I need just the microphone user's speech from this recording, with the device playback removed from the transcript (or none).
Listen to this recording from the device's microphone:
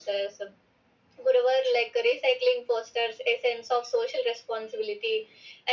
none